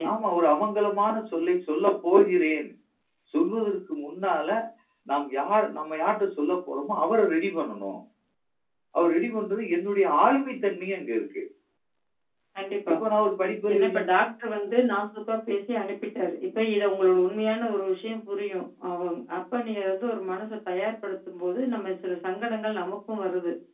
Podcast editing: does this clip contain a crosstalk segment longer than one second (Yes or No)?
No